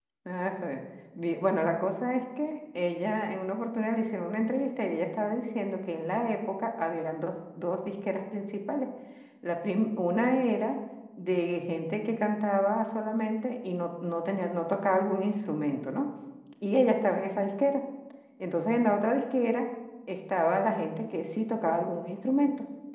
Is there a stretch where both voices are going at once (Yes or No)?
No